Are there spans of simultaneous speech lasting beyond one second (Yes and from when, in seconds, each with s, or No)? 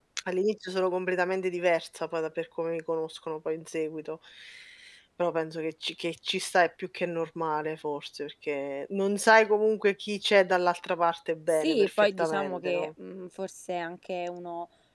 Yes, from 11.5 s